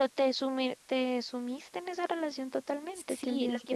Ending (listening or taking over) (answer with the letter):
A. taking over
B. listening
A